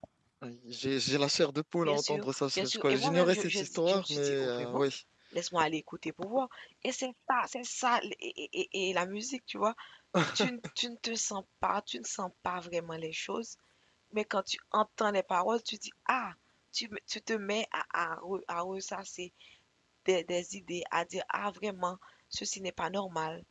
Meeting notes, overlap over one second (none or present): present